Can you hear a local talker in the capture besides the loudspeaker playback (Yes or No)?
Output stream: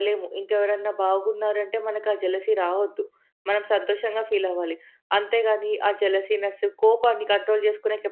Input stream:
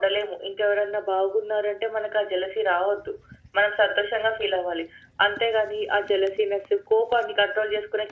No